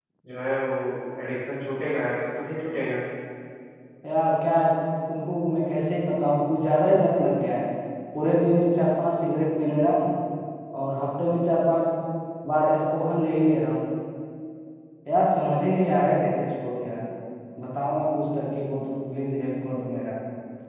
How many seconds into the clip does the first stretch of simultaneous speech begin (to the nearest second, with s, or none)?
none